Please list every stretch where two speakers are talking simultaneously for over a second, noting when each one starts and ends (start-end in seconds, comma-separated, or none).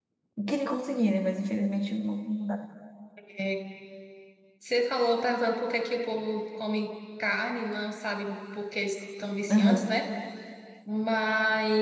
none